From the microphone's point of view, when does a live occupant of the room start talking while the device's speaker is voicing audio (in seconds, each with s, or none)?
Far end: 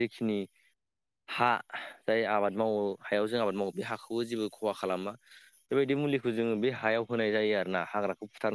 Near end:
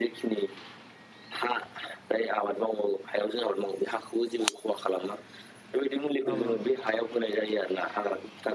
6.3 s